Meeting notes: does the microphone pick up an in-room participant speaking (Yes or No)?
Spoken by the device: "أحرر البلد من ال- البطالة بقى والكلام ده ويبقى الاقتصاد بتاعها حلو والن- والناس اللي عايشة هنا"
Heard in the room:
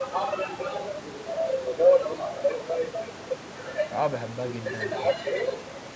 Yes